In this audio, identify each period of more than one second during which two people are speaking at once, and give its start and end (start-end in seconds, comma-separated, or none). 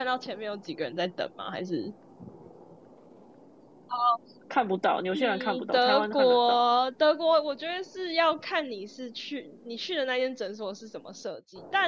5.1-6.6